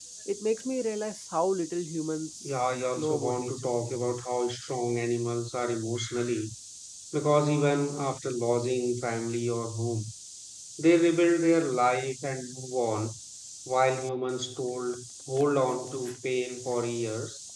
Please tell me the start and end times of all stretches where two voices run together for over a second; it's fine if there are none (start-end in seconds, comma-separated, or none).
2.4-3.7